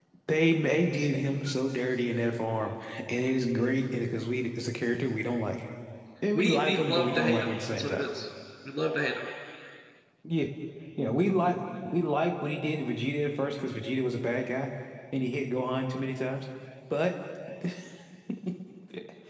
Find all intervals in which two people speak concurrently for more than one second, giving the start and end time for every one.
6.3-8.0

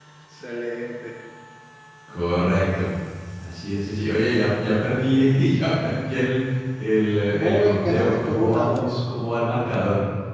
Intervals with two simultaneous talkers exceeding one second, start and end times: 7.3-8.9

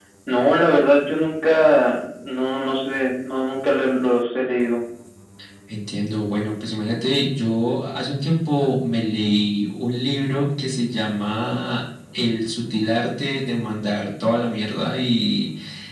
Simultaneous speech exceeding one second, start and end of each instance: none

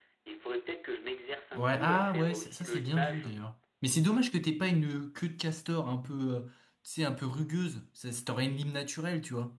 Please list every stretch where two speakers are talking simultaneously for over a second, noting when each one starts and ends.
1.5-3.3

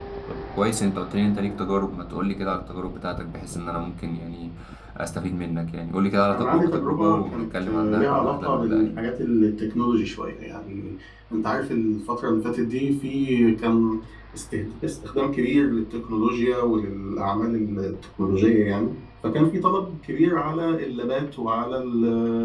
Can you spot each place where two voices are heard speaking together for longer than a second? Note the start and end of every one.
6.3-9.0

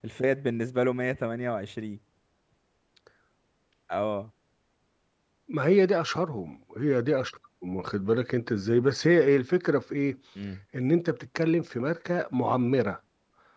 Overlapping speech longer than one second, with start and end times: none

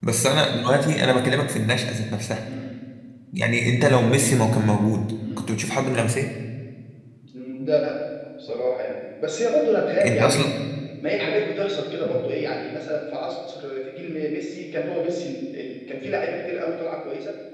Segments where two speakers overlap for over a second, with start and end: none

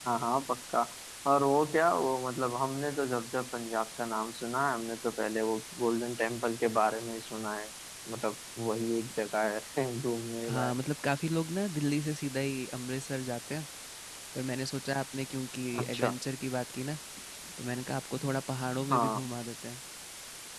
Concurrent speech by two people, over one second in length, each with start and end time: none

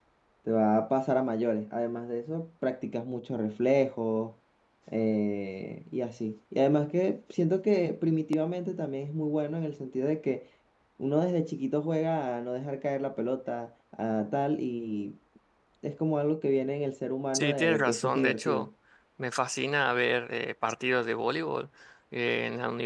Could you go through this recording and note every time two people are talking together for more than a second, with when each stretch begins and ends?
17.3-18.7

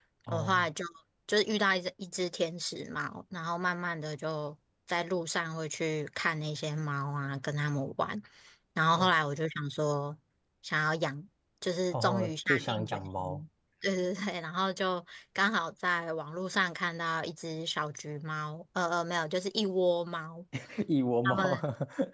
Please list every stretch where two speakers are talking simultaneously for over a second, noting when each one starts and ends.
11.9-13.4

